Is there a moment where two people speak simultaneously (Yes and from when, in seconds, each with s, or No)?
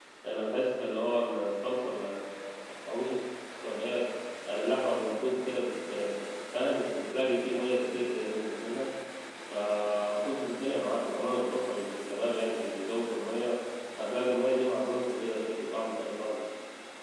No